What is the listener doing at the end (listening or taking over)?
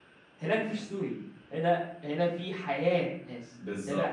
taking over